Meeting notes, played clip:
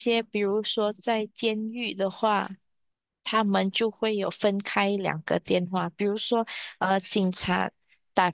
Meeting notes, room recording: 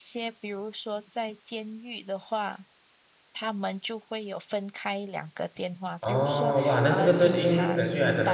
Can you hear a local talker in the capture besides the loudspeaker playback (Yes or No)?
Yes